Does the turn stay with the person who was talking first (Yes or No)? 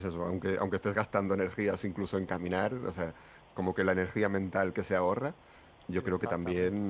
Yes